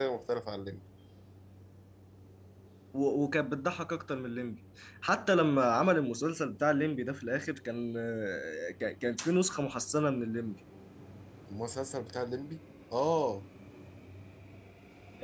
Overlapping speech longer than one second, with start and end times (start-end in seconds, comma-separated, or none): none